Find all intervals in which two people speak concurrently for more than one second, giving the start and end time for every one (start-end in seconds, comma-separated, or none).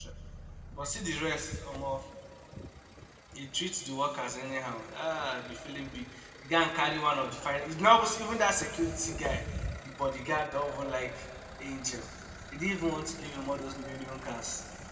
none